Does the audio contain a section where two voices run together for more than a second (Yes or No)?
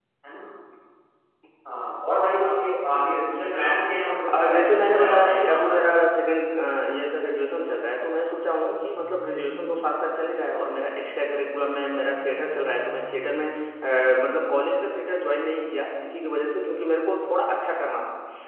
Yes